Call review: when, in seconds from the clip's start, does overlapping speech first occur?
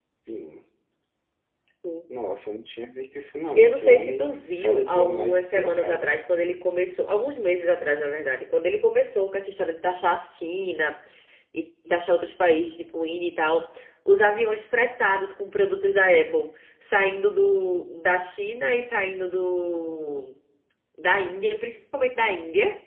3.6 s

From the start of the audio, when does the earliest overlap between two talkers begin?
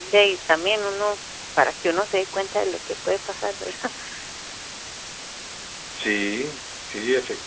none

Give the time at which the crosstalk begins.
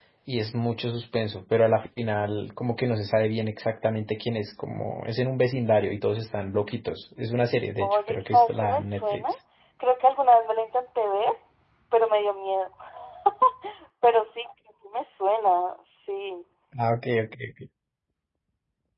7.8 s

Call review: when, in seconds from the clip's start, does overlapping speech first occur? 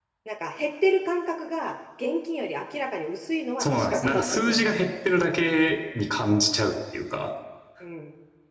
3.6 s

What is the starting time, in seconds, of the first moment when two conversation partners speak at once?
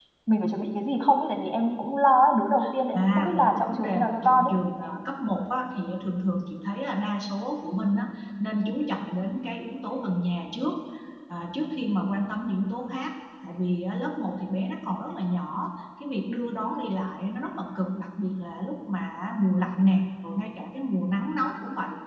2.9 s

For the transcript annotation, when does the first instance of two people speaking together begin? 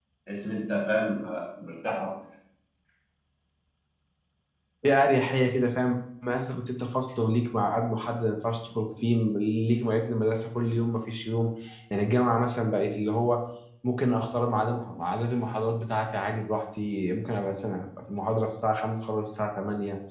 none

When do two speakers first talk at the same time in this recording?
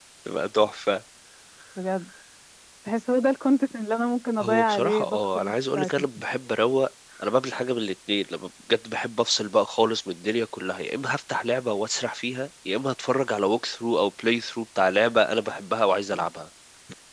4.4 s

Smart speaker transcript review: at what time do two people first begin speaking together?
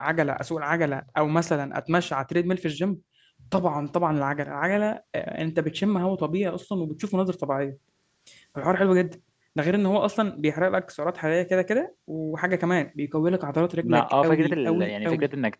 13.8 s

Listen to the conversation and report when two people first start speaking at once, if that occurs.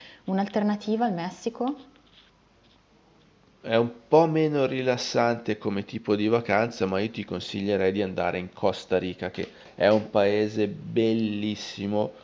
none

